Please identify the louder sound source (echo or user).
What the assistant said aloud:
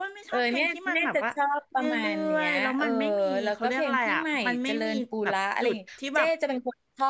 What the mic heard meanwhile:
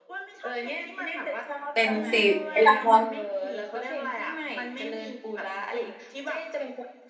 user